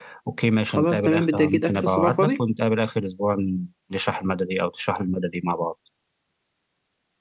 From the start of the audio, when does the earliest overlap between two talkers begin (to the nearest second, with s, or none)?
1 s